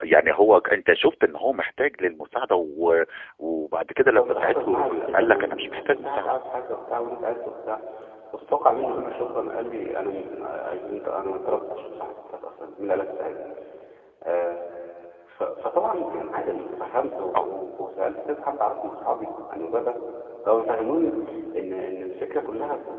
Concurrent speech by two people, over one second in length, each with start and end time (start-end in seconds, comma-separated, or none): 4.0-6.4